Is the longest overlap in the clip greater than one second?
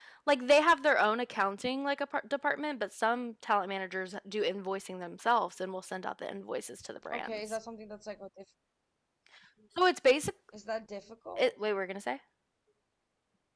No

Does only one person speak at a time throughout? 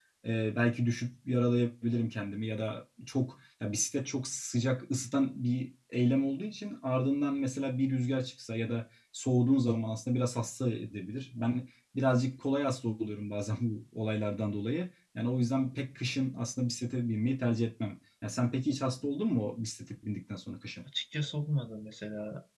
Yes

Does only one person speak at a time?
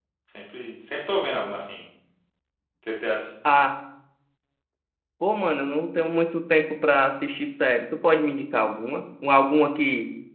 Yes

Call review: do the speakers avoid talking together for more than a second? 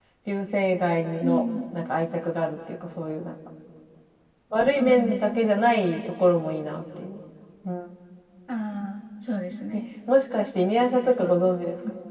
Yes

